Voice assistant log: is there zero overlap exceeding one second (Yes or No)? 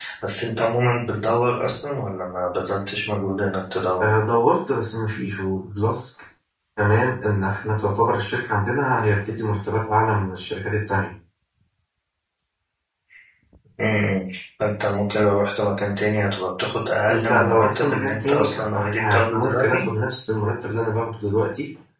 No